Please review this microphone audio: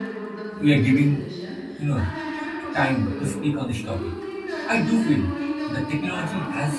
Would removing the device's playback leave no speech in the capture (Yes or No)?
No